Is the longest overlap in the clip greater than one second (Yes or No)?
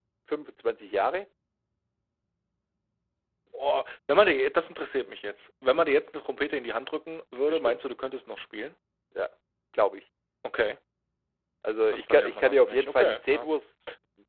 Yes